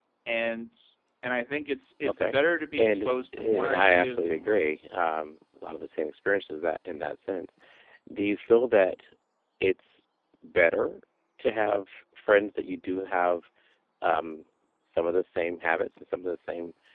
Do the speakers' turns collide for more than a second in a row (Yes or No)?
Yes